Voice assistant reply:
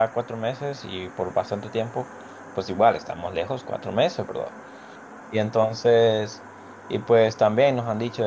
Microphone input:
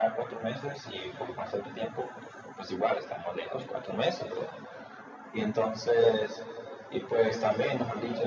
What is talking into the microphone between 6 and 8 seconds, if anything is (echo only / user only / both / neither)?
echo only